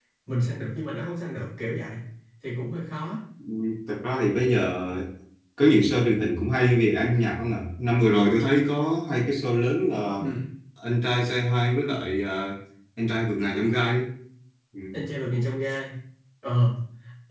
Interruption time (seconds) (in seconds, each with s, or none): none